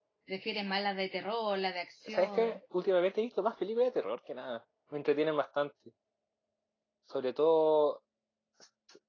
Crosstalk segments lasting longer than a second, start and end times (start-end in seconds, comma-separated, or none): none